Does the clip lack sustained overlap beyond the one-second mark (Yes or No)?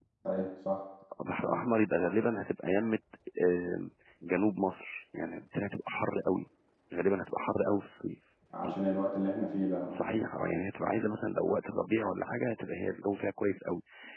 Yes